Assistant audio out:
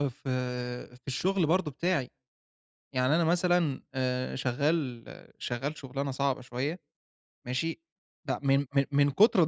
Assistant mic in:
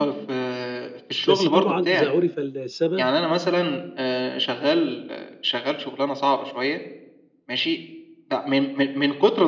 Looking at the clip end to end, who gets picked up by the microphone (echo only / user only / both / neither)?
both